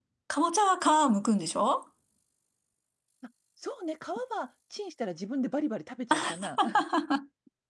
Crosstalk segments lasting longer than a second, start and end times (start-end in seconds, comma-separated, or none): none